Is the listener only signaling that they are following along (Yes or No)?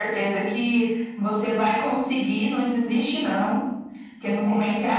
Yes